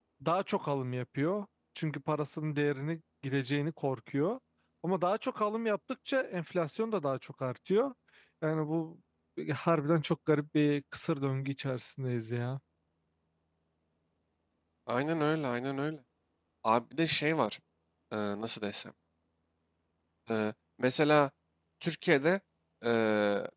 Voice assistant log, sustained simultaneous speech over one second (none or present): none